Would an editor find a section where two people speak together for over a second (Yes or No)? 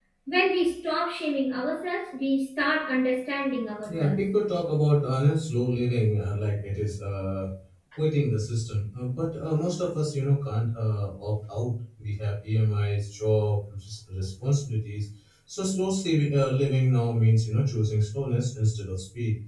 No